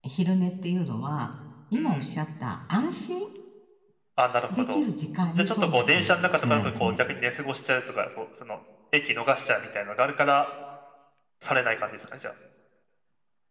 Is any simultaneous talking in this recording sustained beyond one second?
Yes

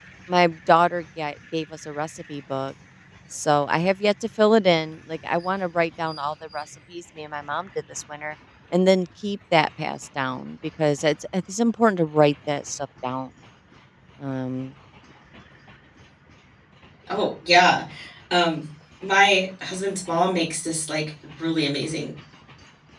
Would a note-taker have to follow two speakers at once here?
No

